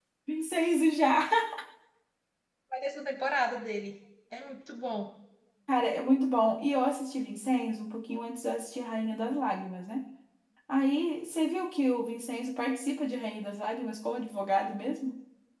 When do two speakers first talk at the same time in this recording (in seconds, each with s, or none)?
none